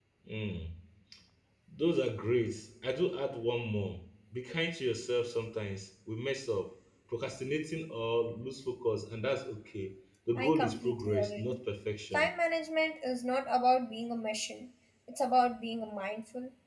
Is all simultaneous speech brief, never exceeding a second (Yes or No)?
No